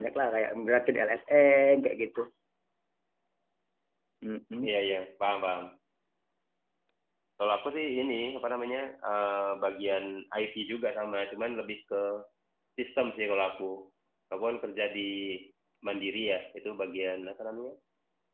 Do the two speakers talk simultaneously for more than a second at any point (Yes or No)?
No